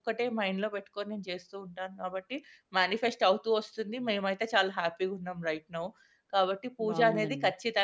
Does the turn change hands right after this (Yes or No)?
No